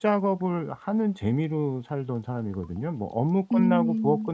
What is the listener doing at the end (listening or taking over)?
listening